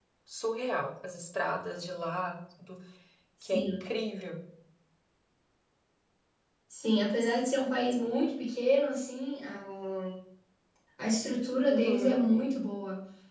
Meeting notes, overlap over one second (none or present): none